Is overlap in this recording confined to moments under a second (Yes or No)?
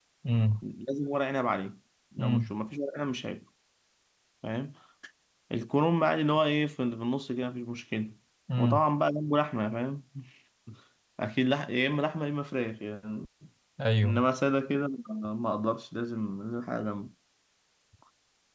Yes